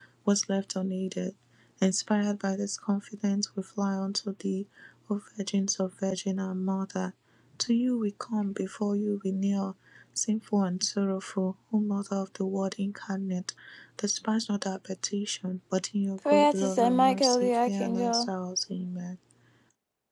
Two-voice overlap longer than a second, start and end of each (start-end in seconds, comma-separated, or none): 16.2-18.2